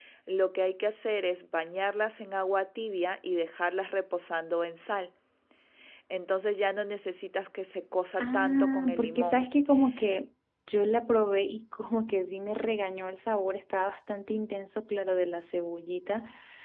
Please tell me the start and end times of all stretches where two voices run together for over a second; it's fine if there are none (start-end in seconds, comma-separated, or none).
8.2-9.4